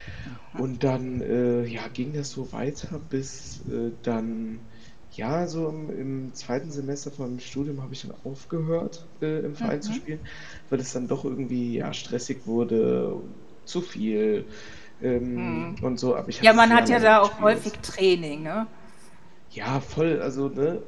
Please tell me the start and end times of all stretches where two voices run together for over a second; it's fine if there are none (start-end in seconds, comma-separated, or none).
16.4-17.7